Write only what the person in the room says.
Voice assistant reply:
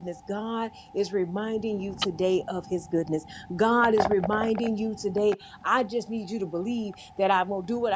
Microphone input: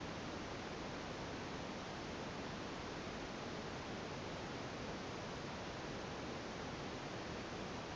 none

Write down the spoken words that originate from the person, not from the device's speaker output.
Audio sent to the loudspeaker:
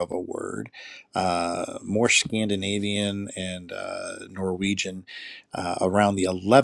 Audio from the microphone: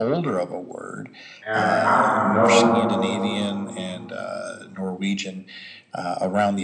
and I don't know

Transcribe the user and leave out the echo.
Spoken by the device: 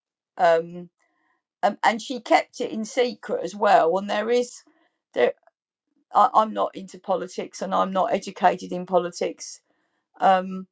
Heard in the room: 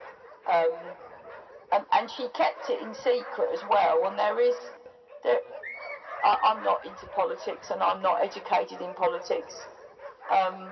none

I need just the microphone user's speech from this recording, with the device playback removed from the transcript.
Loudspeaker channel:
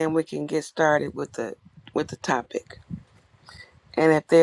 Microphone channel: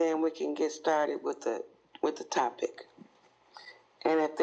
none

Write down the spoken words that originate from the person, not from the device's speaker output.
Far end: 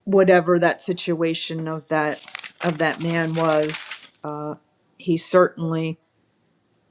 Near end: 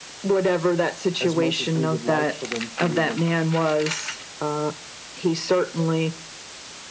as much as we would like for them to, or

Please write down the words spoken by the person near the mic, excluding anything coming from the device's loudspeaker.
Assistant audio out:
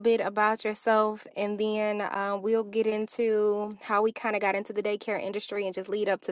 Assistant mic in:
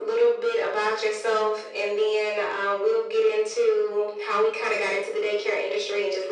none

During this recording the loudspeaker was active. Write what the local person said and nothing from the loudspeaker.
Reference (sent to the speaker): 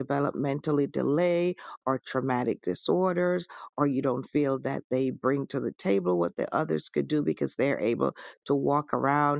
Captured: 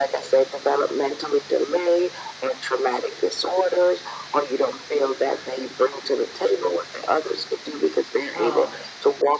uh

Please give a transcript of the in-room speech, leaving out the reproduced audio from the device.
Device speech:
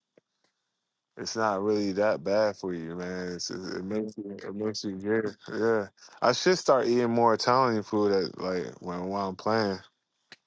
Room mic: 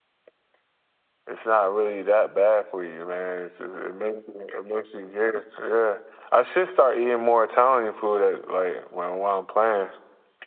none

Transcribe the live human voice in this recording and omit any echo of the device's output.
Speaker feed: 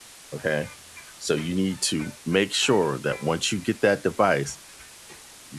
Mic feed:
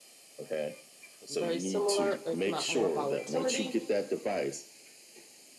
very similar, if not more, volatility

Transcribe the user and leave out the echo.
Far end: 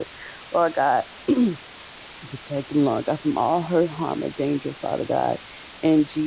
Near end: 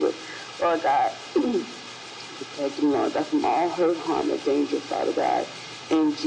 none

